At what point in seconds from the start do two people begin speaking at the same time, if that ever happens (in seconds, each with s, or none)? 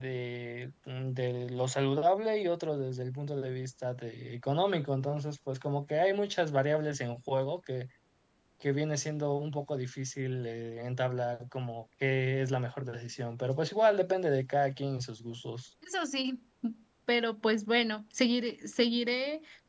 none